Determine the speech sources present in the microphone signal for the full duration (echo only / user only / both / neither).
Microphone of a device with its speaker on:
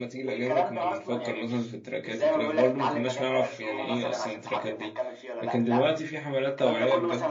both